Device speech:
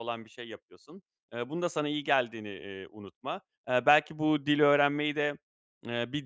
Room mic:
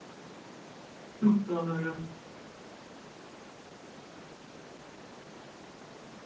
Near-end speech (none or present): present